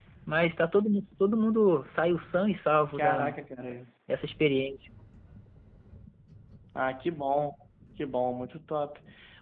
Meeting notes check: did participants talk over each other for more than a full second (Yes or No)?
No